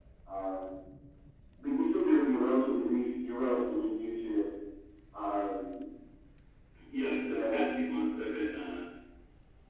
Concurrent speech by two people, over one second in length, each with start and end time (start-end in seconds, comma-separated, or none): none